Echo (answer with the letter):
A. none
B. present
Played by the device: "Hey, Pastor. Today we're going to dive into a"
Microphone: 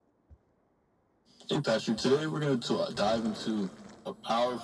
B